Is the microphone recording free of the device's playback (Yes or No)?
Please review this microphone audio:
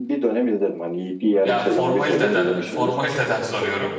No